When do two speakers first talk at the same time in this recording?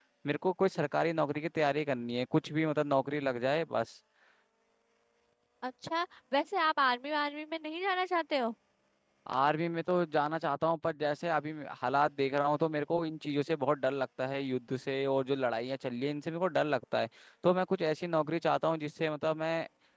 none

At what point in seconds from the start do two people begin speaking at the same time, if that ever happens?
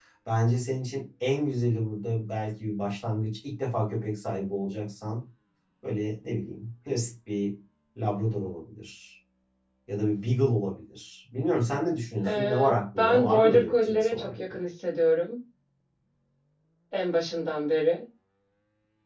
12 s

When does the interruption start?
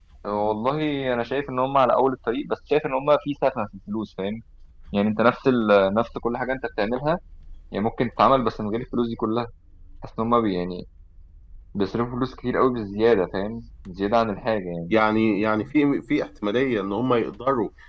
none

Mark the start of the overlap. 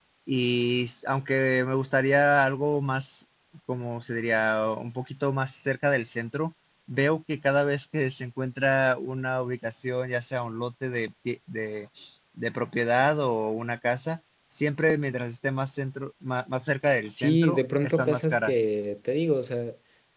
17 s

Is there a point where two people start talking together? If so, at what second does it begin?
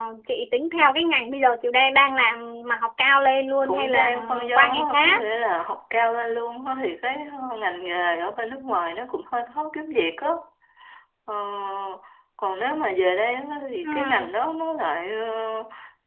4 s

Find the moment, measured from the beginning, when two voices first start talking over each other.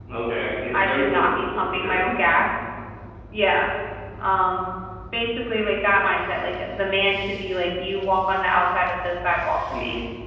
1 s

